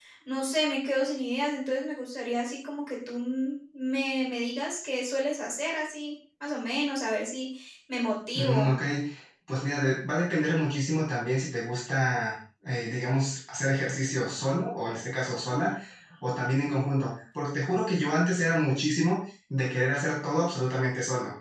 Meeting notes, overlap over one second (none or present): none